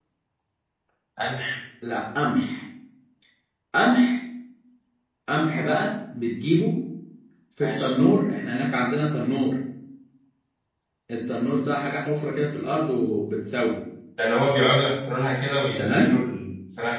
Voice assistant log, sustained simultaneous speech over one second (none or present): none